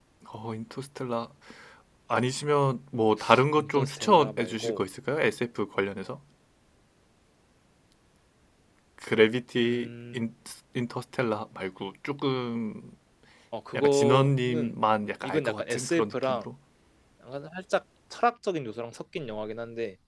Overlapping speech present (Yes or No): Yes